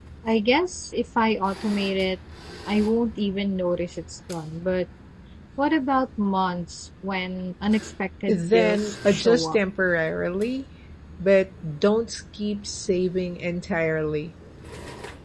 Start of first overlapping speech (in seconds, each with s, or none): 8.3 s